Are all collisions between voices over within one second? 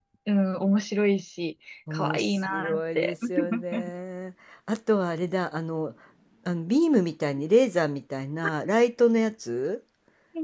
No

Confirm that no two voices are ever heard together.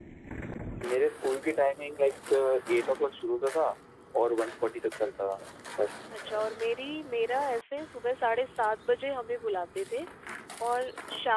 Yes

